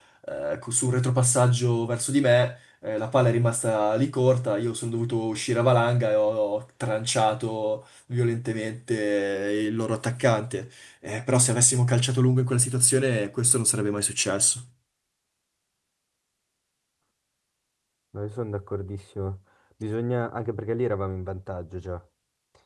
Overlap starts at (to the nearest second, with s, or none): none